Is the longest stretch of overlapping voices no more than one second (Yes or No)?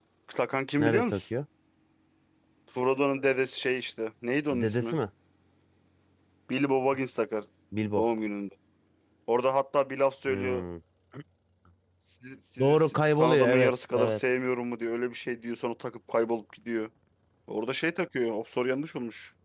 No